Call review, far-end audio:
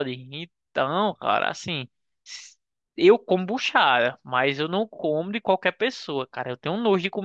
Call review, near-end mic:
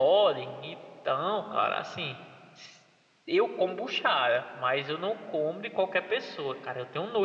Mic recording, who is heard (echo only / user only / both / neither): echo only